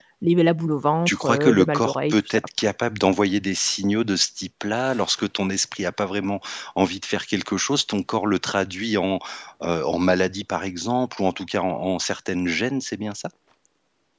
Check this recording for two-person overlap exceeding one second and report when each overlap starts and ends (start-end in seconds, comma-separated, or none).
1.1-2.5